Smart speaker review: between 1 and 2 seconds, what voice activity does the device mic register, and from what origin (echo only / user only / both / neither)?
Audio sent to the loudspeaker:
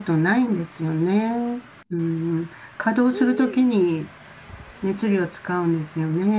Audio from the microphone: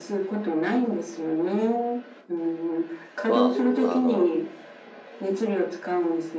echo only